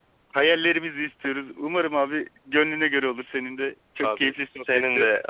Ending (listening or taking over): taking over